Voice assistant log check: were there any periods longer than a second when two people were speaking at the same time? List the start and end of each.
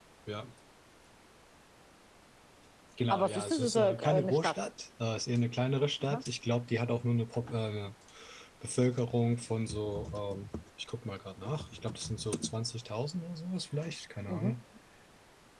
3.1-4.5

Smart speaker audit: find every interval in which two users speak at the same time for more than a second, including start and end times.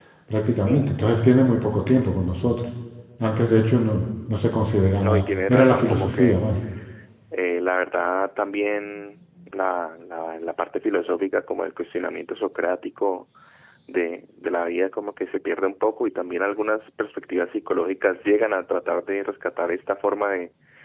5.0-6.4

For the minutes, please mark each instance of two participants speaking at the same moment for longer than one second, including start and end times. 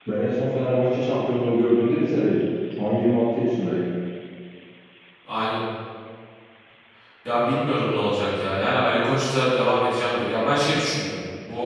none

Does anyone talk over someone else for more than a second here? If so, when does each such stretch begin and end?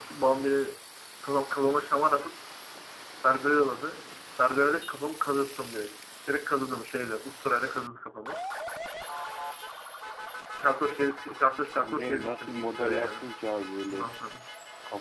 11.8-13.1

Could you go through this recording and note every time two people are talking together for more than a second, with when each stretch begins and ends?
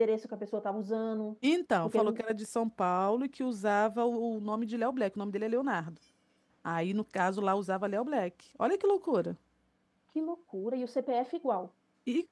none

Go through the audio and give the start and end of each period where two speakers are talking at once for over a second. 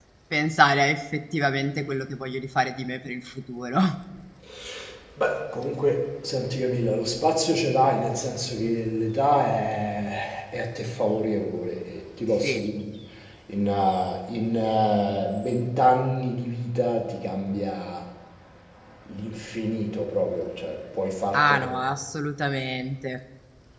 none

